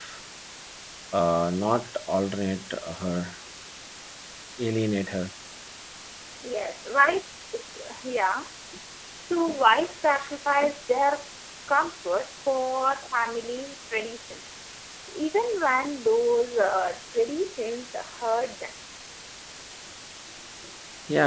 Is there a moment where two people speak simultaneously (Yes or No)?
No